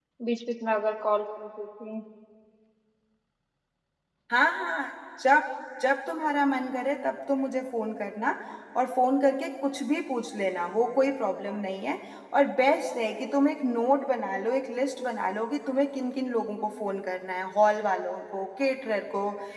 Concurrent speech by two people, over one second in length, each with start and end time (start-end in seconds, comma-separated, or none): none